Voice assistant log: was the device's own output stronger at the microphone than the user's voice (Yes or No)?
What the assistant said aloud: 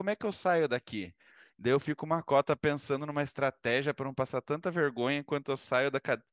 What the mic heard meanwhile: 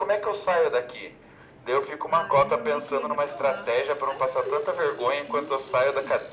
Yes